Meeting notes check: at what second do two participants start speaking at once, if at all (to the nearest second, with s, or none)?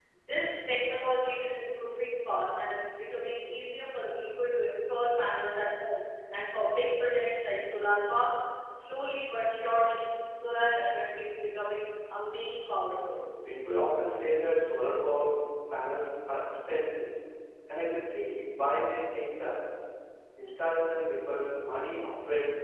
none